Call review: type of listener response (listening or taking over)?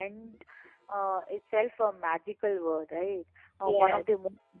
listening